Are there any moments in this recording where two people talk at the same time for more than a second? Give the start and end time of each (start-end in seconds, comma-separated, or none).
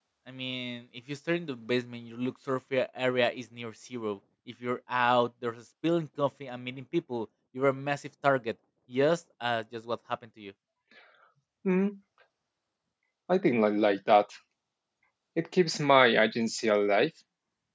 none